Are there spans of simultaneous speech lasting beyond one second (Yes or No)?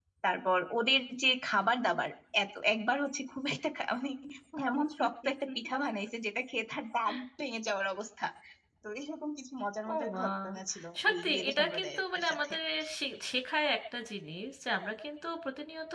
Yes